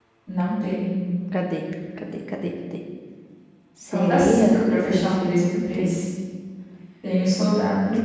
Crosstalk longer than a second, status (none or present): present